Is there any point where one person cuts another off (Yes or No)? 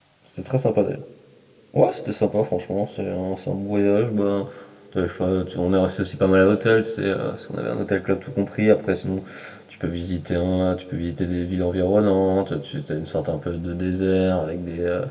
No